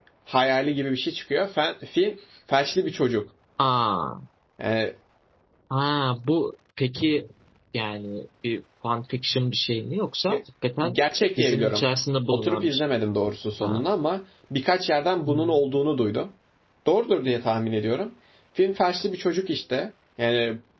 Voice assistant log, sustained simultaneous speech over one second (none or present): none